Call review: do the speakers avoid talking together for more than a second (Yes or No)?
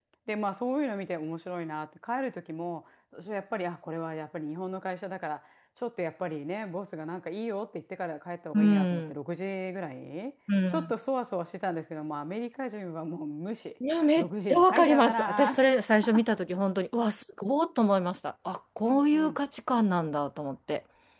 No